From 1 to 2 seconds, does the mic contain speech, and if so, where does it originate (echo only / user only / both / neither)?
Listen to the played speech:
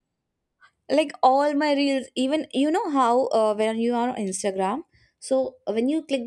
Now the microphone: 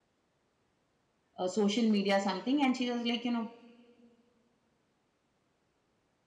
user only